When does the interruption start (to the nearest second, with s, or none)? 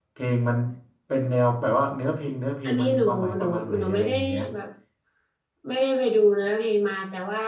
3 s